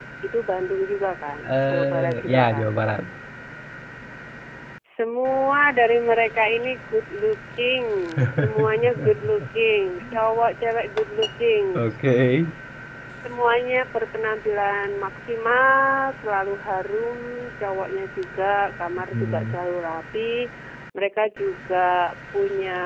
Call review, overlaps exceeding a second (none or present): present